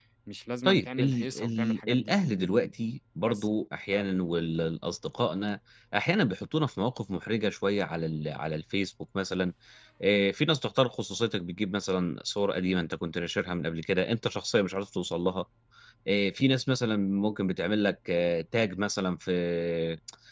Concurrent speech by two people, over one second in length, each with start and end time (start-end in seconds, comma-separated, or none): 0.7-2.1